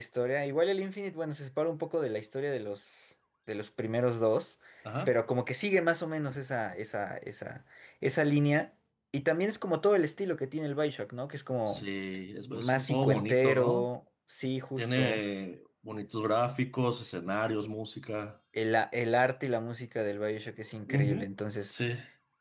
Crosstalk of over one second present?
Yes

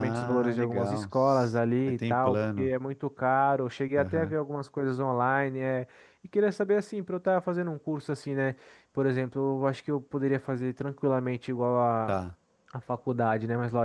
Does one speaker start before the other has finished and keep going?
Yes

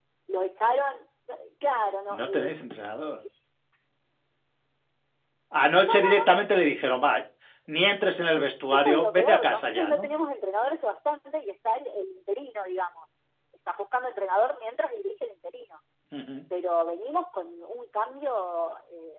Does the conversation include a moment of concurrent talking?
Yes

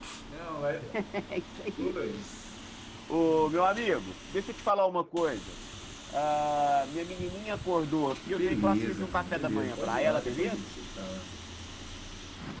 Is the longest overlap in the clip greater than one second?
Yes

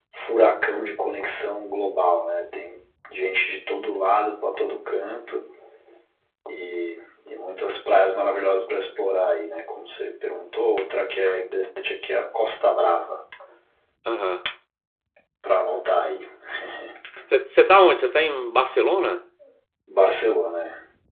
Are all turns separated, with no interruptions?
Yes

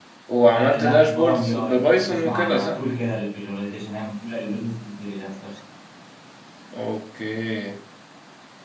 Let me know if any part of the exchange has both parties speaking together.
Yes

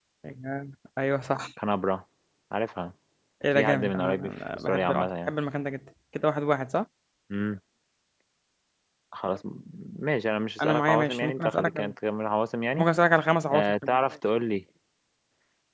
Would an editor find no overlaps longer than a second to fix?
No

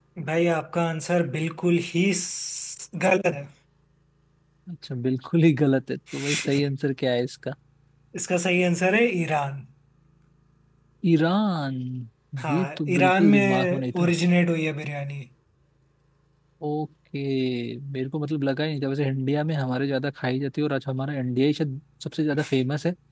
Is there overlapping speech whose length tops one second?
Yes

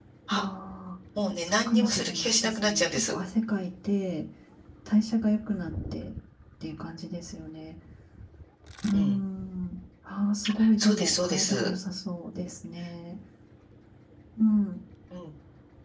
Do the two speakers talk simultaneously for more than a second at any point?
Yes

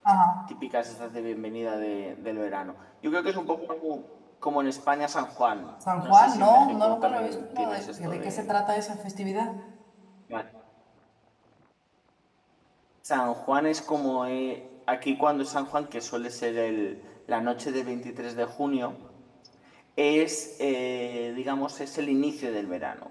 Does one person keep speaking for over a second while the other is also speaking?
Yes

